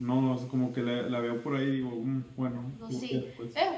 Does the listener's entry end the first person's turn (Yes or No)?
Yes